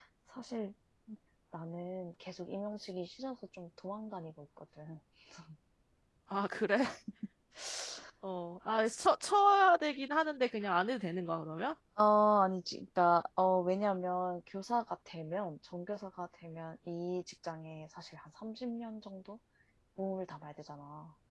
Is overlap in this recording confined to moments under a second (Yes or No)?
Yes